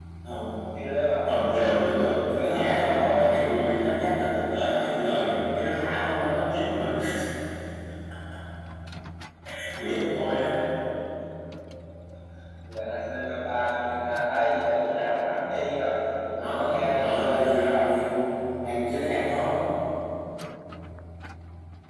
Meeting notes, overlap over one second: present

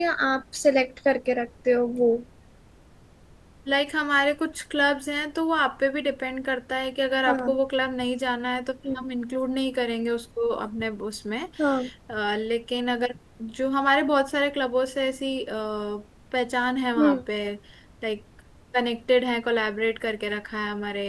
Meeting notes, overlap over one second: none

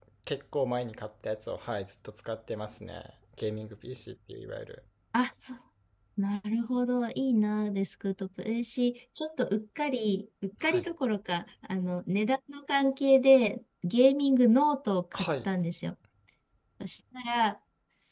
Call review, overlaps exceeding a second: none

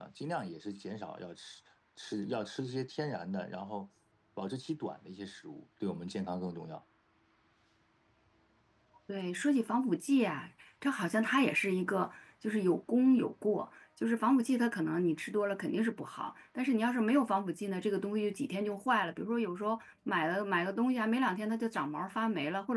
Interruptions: none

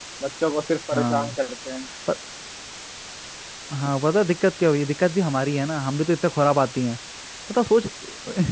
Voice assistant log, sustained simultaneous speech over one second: none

